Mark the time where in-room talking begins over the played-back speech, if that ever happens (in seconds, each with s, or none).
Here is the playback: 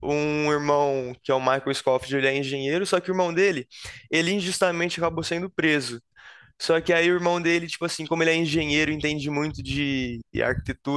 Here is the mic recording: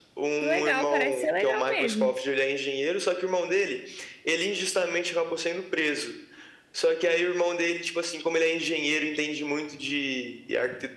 0.3 s